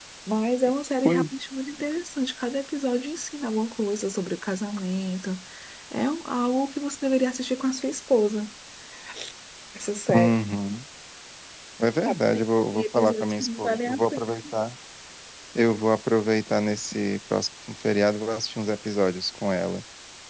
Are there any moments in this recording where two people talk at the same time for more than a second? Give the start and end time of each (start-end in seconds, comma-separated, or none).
12.7-14.2